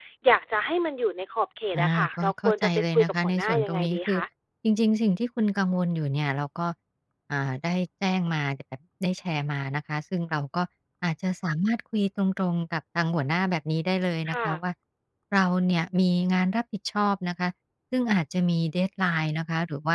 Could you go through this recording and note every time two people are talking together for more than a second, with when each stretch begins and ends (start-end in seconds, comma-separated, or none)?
1.8-4.2